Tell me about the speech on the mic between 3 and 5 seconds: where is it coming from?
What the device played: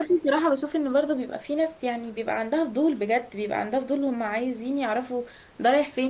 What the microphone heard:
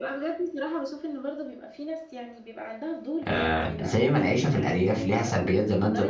both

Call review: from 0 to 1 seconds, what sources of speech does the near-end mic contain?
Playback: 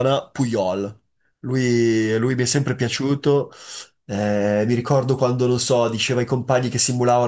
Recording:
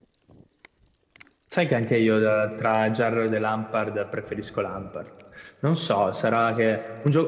neither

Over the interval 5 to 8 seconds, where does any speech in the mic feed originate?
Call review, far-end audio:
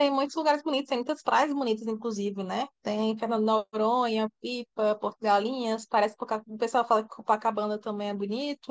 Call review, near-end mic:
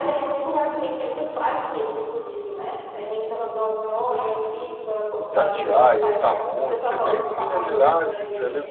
both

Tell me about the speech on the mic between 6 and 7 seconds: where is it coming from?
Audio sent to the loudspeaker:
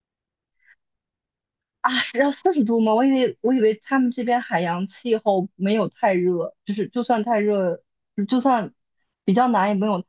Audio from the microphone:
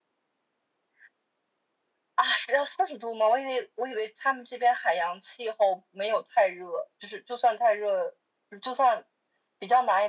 echo only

